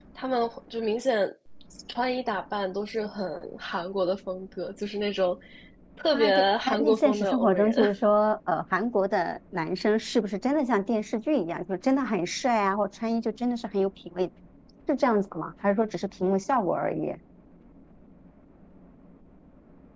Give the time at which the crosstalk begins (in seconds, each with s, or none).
6.1 s